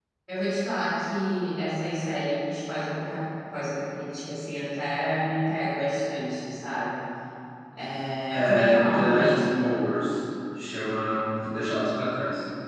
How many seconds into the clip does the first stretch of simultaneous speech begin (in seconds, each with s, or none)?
8.3 s